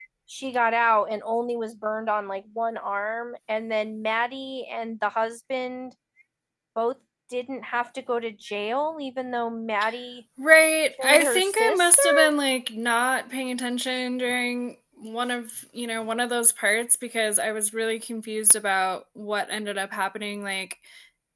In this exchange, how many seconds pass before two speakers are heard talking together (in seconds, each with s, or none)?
11.0 s